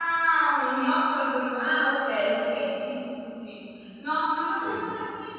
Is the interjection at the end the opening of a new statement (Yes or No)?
No